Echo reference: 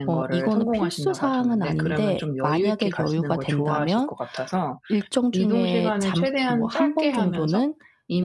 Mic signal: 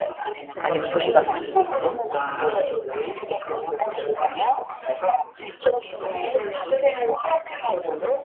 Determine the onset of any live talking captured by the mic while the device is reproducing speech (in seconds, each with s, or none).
0.6 s